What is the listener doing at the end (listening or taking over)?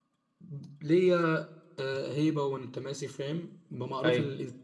listening